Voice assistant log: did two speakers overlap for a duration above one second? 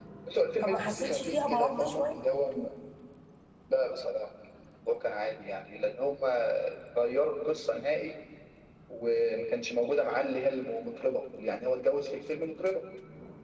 Yes, from 0.6 s

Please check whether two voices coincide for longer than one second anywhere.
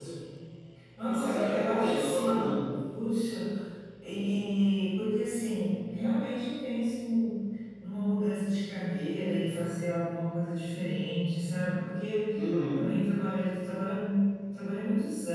Yes, from 1.1 s

